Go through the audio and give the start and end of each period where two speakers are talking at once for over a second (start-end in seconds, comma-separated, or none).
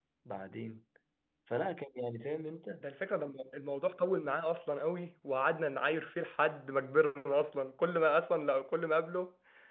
none